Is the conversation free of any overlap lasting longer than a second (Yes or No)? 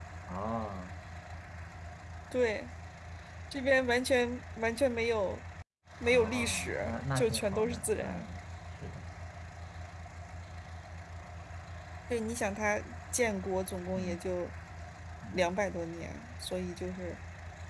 No